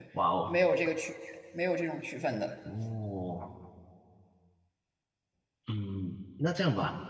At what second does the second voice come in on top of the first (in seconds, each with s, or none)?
none